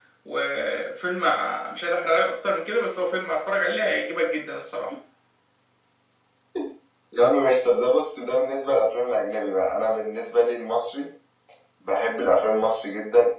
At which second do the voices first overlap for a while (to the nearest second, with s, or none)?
none